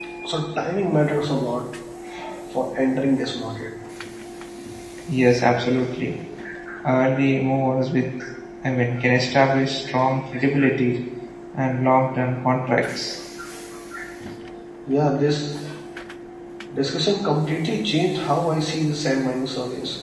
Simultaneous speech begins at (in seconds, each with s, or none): none